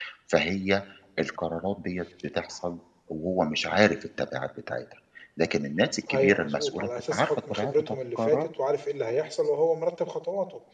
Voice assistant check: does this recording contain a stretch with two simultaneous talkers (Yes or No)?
Yes